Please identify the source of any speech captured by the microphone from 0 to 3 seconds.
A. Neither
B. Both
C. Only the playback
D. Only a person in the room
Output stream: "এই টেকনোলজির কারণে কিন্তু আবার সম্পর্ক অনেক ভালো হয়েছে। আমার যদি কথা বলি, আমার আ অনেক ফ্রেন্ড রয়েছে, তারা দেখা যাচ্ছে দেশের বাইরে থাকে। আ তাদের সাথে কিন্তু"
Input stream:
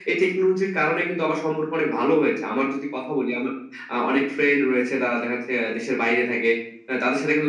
C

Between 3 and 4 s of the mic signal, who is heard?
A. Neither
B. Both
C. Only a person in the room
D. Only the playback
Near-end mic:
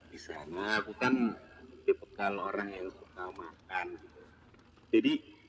D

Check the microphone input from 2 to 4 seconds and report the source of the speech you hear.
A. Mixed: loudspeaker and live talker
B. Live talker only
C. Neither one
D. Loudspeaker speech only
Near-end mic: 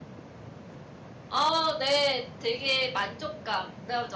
B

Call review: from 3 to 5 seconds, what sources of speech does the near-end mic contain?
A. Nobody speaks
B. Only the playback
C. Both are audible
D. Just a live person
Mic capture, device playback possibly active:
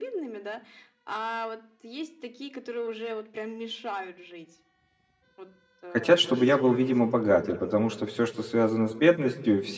B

